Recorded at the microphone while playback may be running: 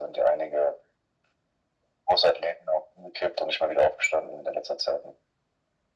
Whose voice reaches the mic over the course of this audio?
echo only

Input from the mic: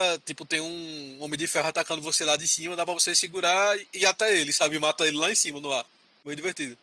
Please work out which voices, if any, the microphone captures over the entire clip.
user only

